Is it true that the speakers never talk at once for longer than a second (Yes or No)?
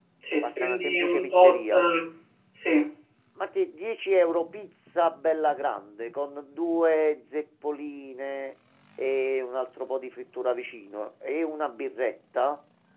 No